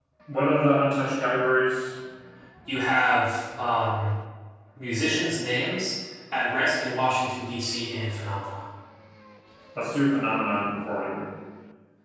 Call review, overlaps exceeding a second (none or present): none